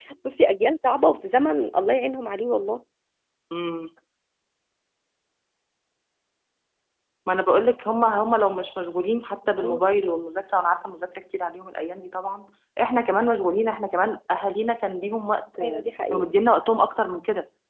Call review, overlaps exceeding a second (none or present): none